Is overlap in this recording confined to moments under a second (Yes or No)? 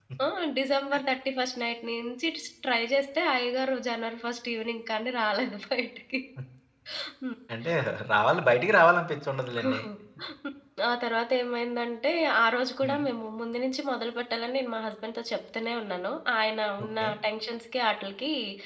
Yes